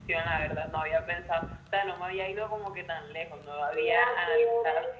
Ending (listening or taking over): taking over